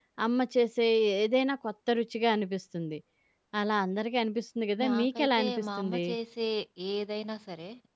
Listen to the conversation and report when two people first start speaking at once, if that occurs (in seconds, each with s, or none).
4.8 s